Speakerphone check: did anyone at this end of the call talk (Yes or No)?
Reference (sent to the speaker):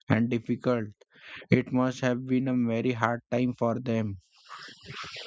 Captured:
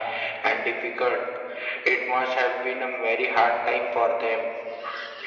No